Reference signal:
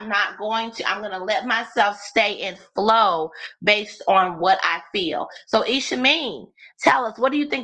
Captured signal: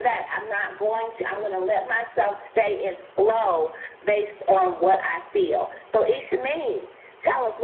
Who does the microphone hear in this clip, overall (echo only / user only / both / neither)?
echo only